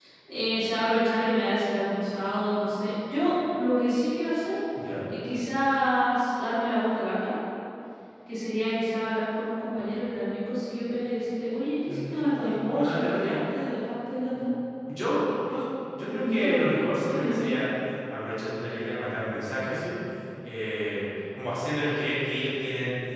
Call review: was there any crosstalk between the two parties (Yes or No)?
Yes